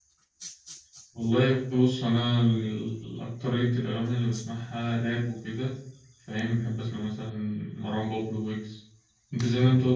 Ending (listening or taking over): listening